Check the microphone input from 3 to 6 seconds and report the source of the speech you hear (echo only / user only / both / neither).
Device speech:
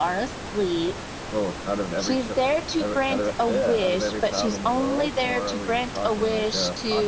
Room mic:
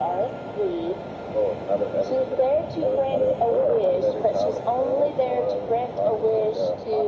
echo only